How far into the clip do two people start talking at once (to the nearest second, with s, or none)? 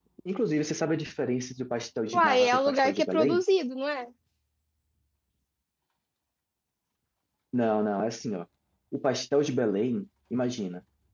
2 s